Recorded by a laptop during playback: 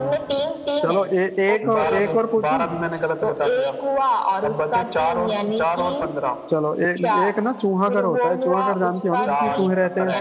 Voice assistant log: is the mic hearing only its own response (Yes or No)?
No